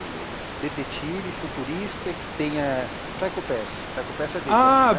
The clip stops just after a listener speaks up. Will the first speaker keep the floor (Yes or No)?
No